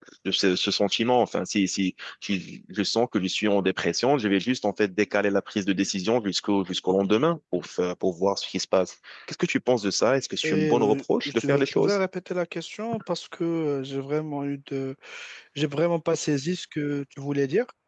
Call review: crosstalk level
present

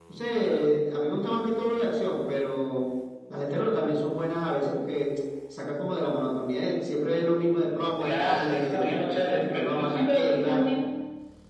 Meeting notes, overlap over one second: present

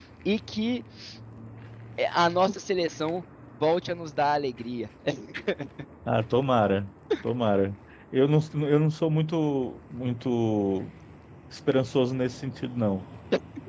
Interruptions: none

